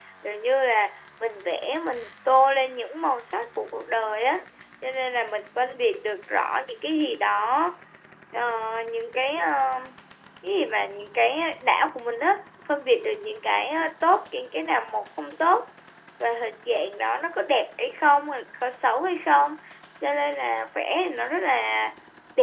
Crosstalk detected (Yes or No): No